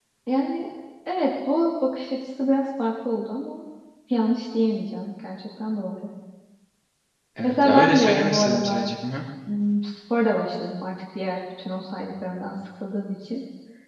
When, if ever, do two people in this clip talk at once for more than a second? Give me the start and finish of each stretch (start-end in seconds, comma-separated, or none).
7.4-8.9